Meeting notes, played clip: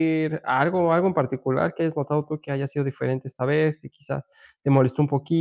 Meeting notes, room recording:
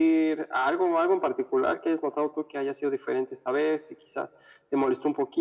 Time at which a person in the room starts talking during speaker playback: none

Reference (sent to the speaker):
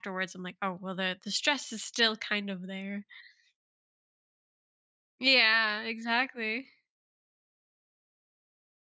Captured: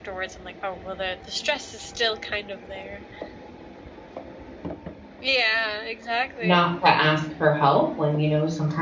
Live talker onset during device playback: 6.4 s

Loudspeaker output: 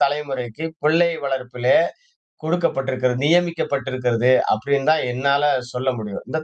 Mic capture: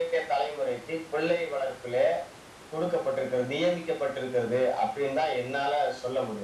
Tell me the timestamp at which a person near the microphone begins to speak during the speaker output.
none

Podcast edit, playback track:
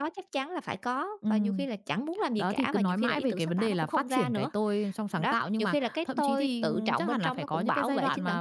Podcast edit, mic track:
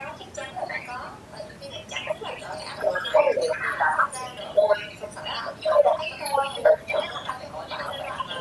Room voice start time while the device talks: none

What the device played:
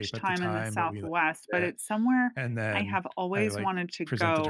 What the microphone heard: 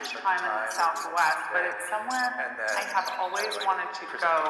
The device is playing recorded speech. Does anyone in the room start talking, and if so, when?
none

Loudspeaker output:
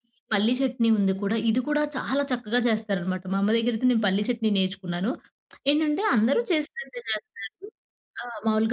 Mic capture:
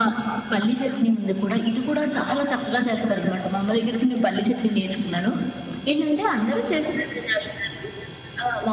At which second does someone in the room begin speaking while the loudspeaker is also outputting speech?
none

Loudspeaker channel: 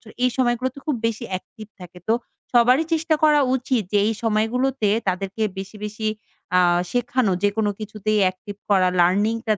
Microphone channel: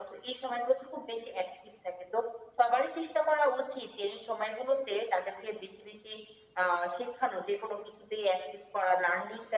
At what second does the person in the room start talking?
none

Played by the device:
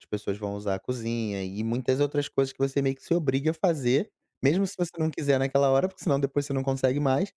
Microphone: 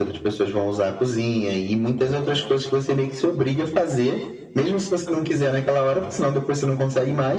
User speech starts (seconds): none

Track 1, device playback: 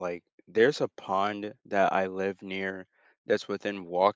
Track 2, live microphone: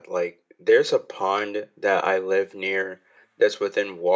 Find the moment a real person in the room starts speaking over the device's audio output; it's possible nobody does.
none

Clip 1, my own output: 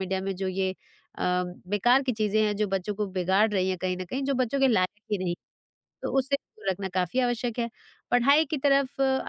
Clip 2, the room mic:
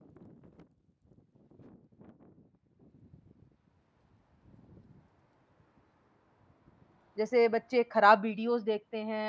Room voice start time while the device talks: 7.2 s

